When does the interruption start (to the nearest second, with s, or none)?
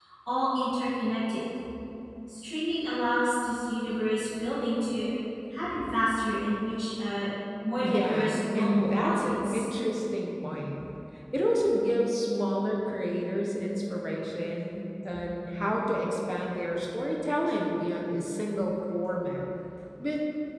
8 s